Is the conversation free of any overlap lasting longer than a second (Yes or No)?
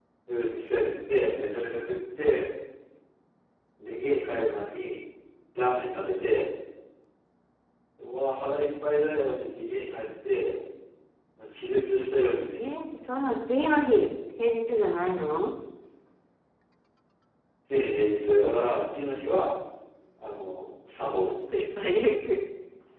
Yes